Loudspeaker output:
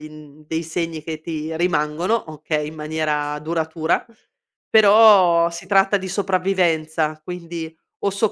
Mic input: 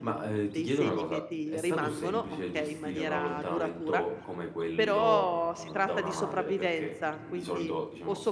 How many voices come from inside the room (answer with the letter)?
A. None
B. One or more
B